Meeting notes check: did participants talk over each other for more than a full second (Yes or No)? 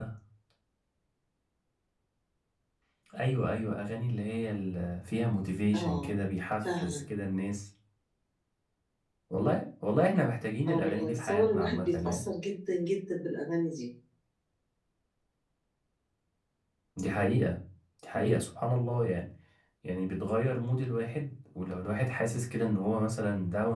Yes